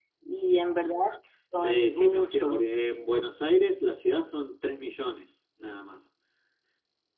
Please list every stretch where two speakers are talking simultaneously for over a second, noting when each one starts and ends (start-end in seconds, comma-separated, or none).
1.5-2.7